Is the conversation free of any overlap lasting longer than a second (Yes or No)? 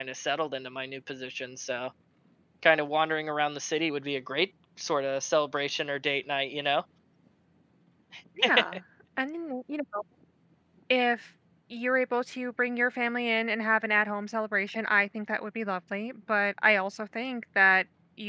Yes